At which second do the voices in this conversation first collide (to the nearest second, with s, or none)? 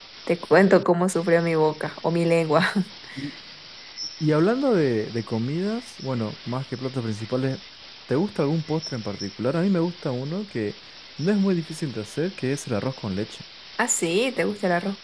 none